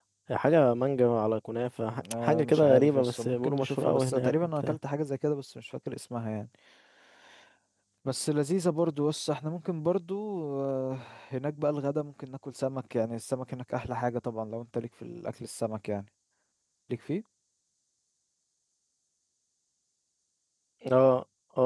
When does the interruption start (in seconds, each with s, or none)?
2.0 s